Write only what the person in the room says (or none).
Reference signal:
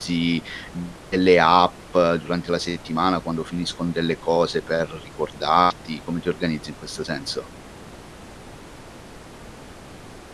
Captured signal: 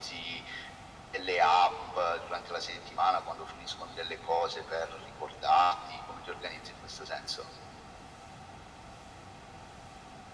none